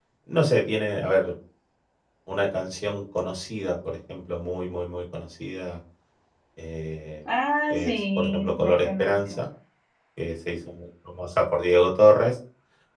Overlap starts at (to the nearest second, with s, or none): 8 s